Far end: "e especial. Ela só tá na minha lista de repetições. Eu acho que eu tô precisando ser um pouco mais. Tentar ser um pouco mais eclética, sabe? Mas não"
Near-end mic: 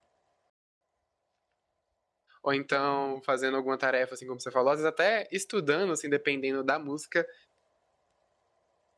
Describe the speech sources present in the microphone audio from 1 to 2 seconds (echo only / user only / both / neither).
neither